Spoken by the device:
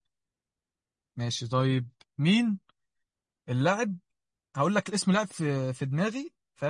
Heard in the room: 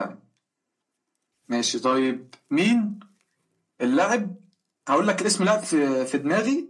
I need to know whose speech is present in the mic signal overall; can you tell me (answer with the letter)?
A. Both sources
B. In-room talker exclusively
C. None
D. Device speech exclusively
D